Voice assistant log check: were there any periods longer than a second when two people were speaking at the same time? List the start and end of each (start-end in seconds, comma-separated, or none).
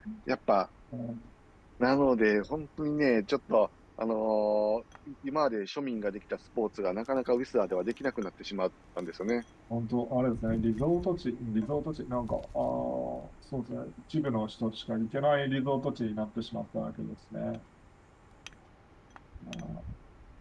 none